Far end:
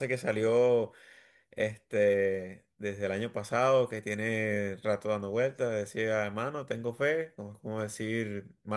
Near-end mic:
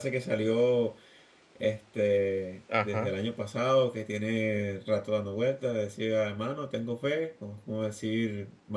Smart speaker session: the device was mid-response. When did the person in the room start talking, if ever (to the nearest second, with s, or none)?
3 s